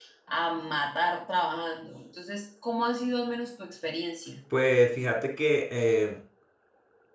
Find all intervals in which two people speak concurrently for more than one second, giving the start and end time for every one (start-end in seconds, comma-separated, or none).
none